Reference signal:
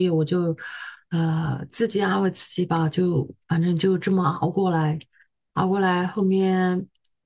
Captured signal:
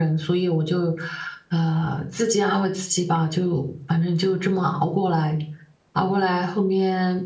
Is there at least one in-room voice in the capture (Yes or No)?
No